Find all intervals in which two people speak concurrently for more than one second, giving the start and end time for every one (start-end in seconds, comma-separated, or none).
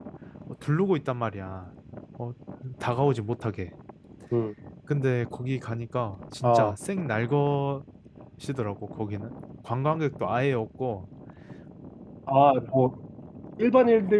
none